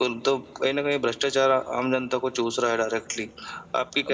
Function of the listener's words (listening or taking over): taking over